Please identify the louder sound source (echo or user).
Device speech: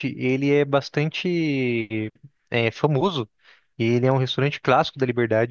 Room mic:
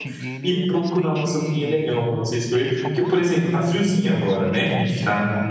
user